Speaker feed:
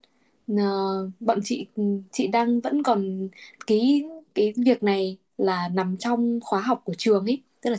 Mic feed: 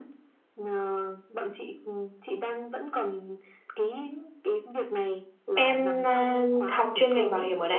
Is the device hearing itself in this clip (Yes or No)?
Yes